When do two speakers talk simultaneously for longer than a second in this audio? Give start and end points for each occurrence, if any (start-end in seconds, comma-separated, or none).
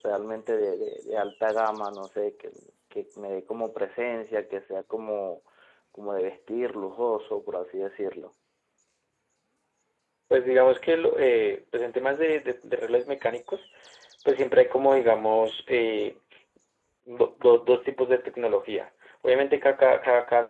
none